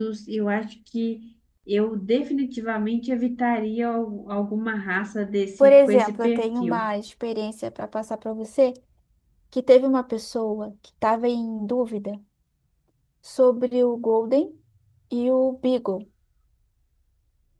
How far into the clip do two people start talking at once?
6 s

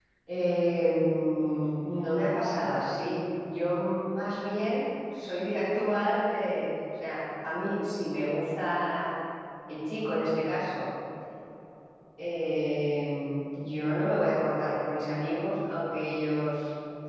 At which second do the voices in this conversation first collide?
none

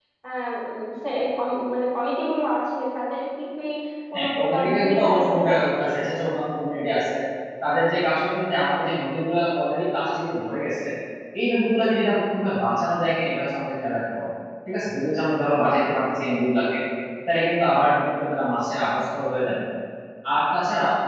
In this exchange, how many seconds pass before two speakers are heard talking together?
4 s

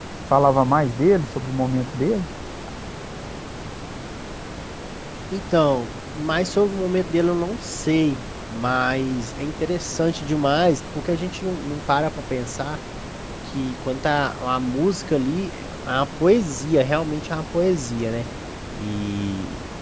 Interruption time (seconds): none

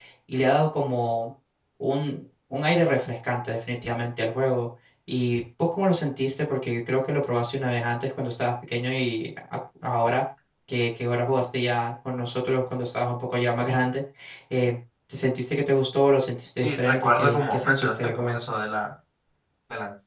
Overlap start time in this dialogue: 17 s

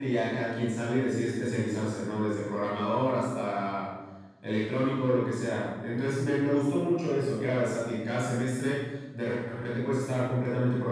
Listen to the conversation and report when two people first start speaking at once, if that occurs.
none

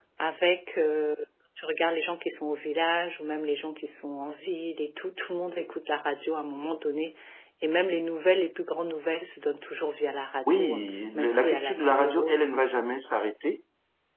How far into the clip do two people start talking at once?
10 s

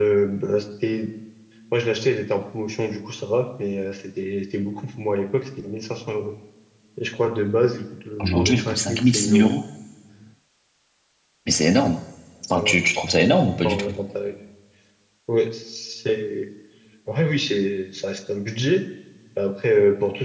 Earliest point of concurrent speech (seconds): 8 s

